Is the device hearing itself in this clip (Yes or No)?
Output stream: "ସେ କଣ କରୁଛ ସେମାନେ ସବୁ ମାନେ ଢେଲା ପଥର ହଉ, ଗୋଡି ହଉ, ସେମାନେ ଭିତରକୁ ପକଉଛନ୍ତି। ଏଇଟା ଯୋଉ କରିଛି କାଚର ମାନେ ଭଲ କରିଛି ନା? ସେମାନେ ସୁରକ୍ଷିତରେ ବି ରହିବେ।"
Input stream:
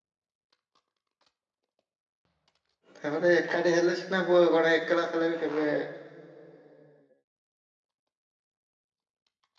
No